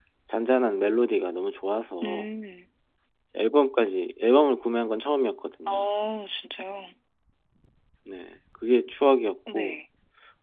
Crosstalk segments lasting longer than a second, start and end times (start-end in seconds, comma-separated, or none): none